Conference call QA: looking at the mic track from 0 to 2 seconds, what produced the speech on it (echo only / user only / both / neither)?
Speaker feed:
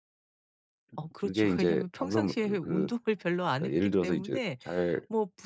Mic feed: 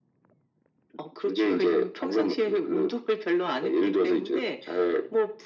echo only